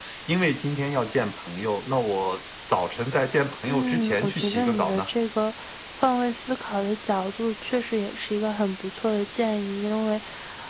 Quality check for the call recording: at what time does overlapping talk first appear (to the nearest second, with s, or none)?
4 s